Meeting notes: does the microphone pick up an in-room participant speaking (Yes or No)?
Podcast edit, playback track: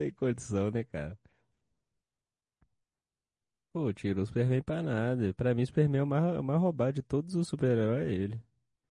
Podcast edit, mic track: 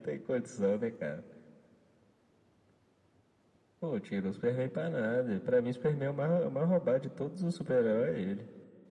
No